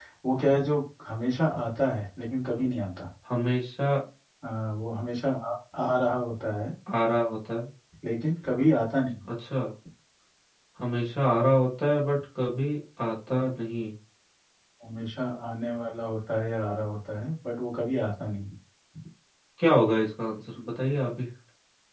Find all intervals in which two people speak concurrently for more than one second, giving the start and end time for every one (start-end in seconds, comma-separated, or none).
none